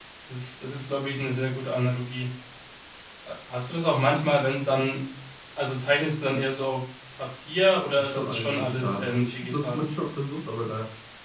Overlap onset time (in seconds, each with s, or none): 8.0 s